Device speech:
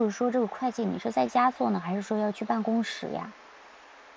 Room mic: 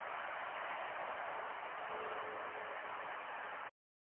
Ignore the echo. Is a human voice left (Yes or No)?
No